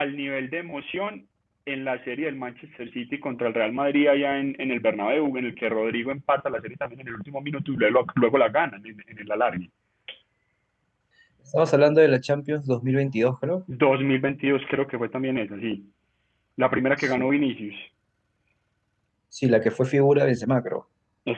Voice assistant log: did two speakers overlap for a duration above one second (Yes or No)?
No